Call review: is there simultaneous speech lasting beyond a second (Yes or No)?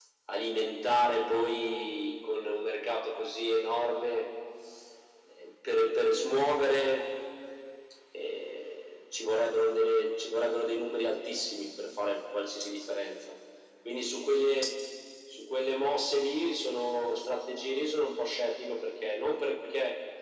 No